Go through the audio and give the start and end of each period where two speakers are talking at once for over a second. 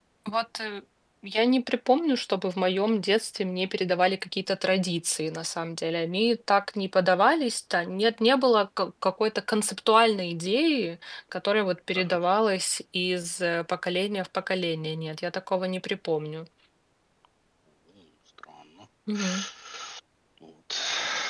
none

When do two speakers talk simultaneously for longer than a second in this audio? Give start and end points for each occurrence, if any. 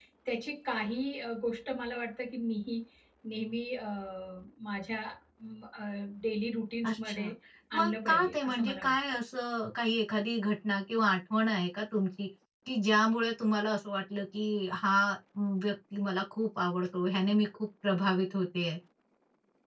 7.8-9.0

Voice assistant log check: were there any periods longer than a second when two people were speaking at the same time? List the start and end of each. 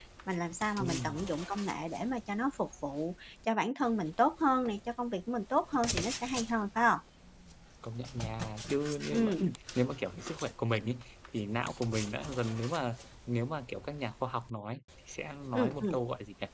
none

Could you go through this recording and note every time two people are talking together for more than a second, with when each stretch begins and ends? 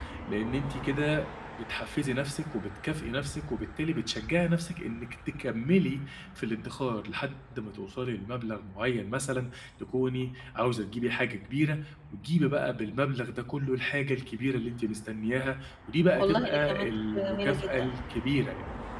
16.1-17.9

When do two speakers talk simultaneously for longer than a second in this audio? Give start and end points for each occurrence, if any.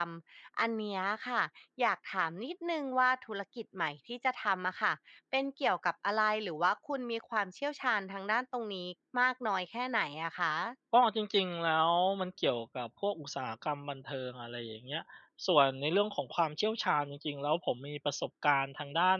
none

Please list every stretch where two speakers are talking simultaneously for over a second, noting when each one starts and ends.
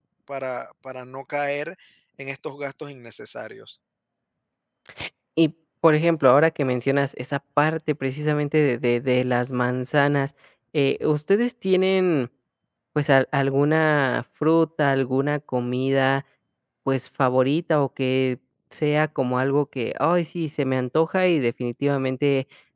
none

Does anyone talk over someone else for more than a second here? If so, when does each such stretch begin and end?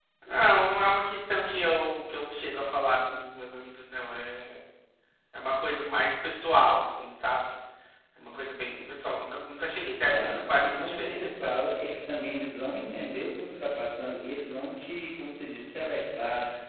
10.0-11.5

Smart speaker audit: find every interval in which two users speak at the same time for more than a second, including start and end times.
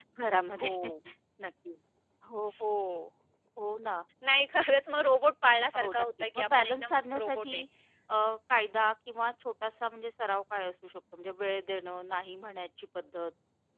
5.8-7.6

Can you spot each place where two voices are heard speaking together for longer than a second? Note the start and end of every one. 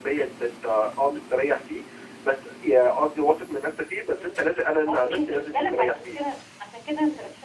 4.1-6.2

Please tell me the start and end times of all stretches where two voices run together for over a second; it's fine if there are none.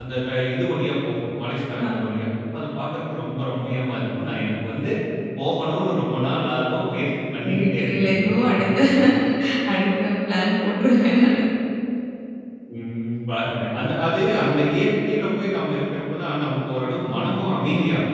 7.4-8.8

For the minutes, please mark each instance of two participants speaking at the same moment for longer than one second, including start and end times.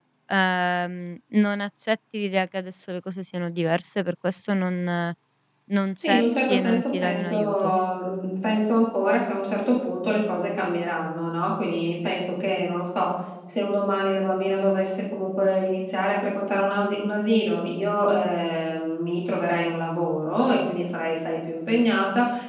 6.0-7.7

